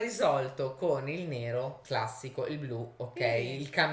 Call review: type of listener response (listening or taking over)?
listening